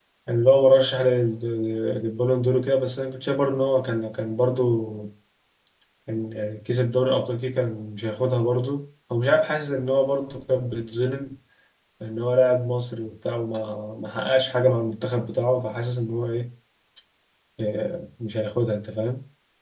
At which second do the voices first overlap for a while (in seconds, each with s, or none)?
none